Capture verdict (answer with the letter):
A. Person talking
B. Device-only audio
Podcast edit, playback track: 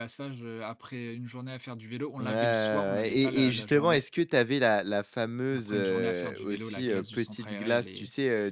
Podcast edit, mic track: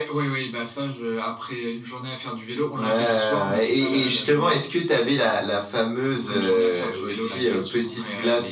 B